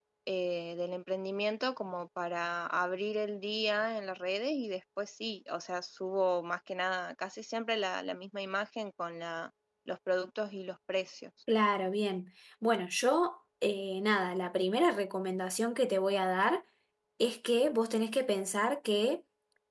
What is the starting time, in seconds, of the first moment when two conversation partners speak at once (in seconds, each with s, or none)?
none